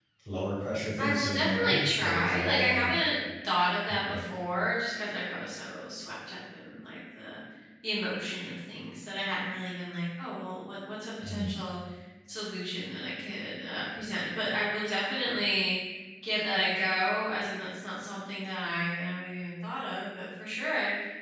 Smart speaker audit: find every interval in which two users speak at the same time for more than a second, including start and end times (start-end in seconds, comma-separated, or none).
1.0-2.9